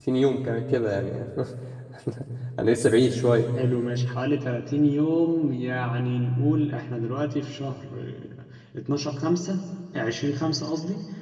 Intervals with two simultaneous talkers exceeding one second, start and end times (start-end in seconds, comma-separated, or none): none